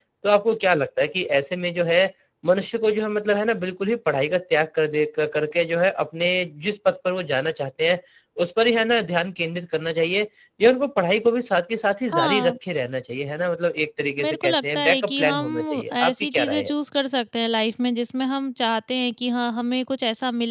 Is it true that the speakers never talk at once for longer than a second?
No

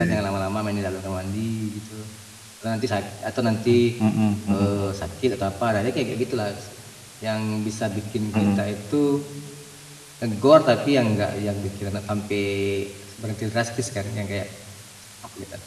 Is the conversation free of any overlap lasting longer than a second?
Yes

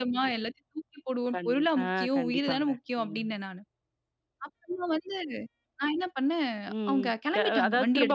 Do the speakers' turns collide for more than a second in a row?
Yes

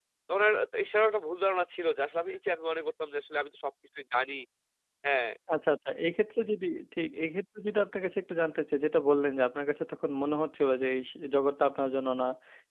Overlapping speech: No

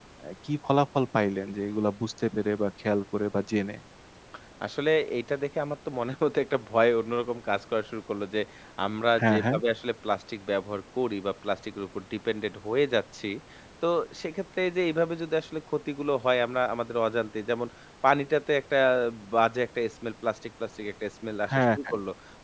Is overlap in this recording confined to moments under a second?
Yes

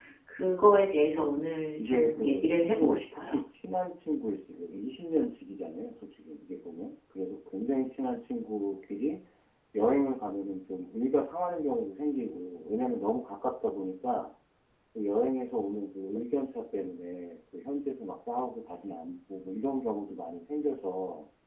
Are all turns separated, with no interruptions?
No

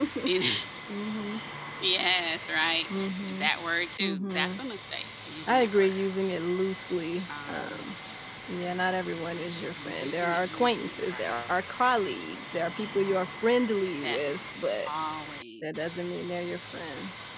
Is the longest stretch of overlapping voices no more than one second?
No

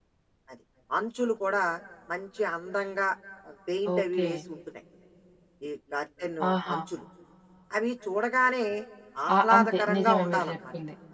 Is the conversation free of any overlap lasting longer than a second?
No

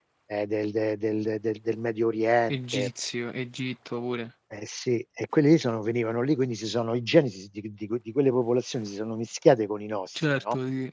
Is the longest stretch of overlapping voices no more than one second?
Yes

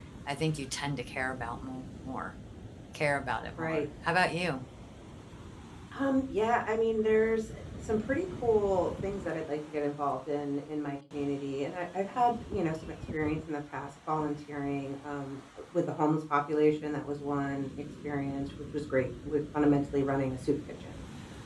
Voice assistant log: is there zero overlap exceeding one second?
Yes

